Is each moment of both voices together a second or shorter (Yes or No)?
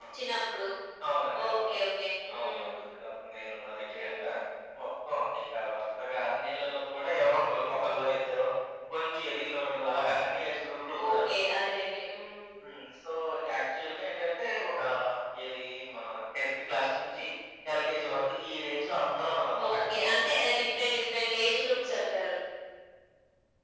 Yes